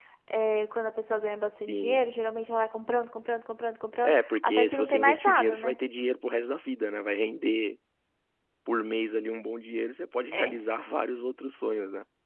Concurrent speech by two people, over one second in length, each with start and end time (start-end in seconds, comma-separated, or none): 4.0-5.8